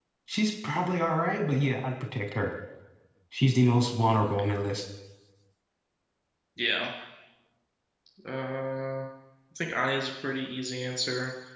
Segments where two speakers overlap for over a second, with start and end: none

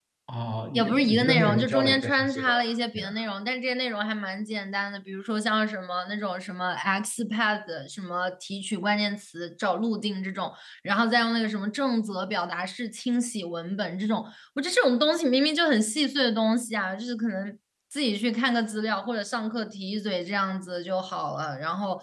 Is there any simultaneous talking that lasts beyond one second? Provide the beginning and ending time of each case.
0.7-2.5

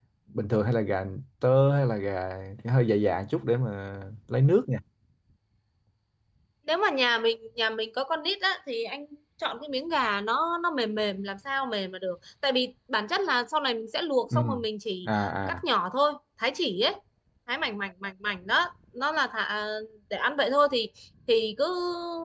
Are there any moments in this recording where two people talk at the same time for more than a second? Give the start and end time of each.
none

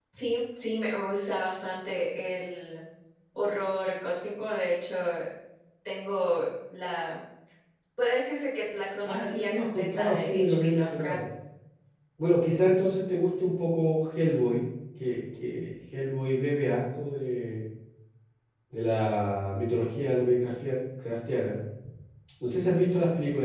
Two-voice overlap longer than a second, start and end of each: 9.1-11.2

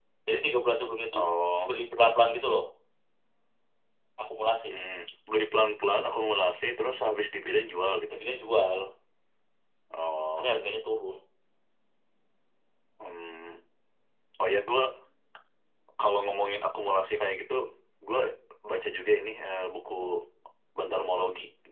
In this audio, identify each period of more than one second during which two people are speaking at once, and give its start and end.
none

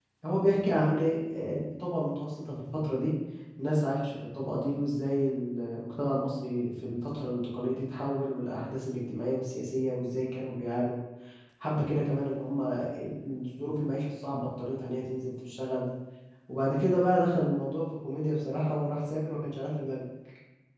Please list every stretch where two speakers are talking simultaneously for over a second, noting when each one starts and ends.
none

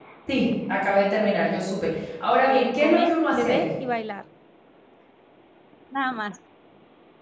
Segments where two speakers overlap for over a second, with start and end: 2.5-3.7

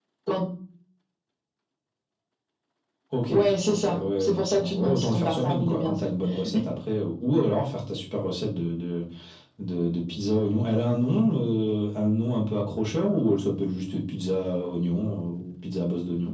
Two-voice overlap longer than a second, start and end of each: 3.3-5.9

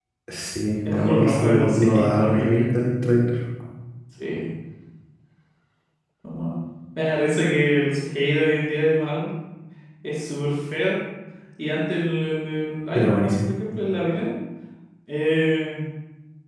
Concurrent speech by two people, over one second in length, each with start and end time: 0.9-2.6

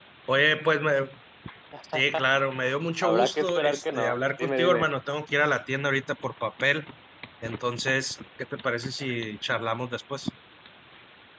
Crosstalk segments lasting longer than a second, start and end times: 3.0-4.9

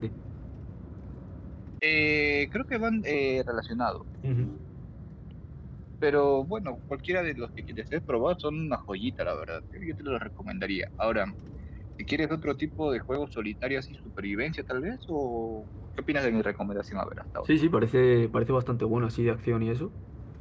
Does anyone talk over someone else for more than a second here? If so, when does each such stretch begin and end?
none

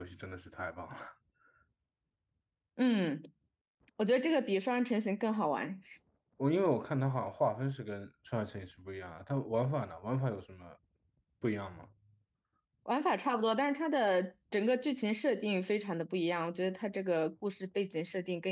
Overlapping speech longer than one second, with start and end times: none

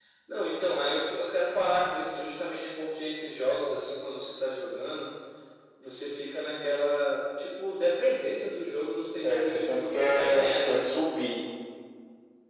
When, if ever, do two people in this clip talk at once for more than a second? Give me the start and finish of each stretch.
9.2-11.1

